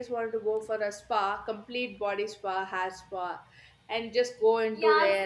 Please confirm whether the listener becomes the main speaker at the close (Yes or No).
Yes